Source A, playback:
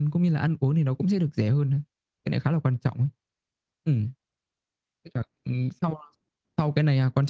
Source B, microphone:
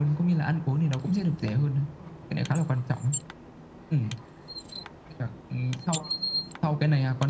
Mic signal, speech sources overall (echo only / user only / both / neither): echo only